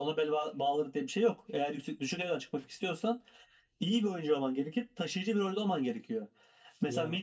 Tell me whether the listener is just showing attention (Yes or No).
Yes